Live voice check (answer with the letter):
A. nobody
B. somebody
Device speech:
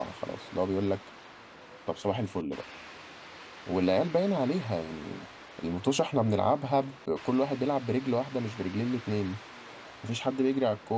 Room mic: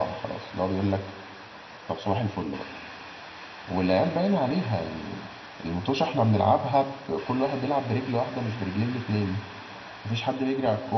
A